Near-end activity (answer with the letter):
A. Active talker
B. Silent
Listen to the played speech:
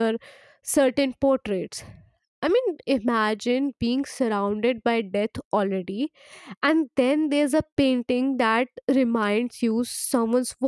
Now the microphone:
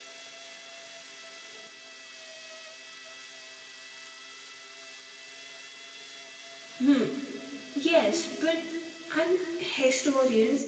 A